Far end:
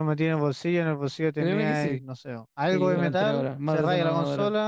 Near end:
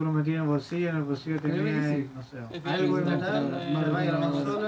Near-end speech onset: 2.5 s

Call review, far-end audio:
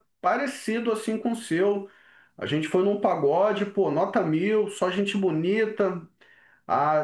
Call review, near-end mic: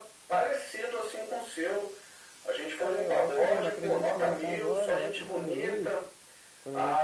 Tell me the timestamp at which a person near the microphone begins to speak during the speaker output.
2.8 s

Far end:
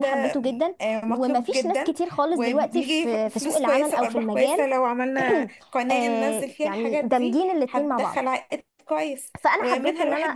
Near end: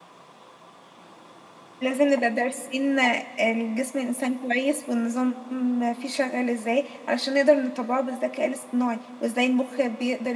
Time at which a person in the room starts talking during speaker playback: 1.8 s

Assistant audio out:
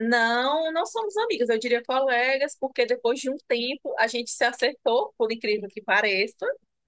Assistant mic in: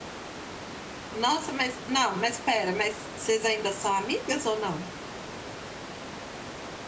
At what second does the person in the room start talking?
1.1 s

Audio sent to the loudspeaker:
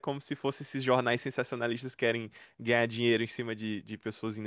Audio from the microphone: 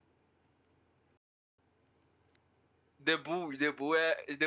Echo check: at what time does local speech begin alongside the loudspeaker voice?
3.0 s

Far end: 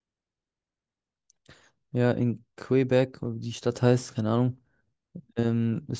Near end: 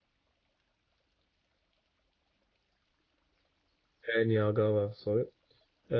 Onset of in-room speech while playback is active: 4.0 s

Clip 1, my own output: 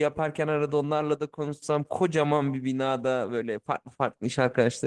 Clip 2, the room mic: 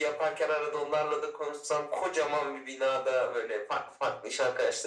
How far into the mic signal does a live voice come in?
none

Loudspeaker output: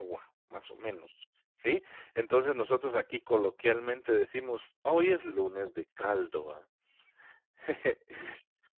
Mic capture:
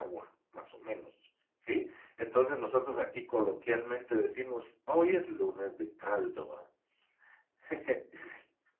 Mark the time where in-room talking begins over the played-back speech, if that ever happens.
none

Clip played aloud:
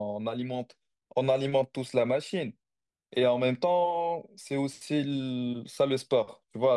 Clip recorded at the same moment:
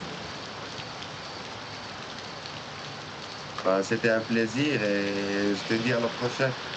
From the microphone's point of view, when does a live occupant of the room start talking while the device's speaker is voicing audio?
3.6 s

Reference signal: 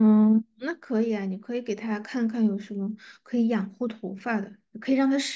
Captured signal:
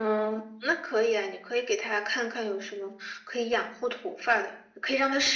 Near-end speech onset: none

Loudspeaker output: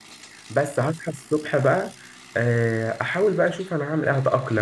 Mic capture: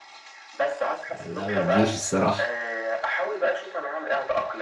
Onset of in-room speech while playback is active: 1.2 s

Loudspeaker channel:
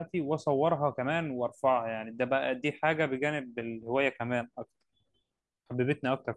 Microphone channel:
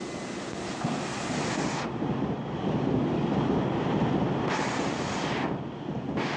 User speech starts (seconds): none

